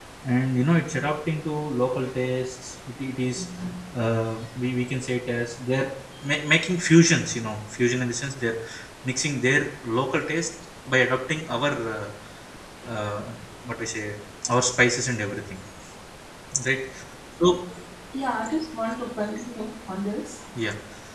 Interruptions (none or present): none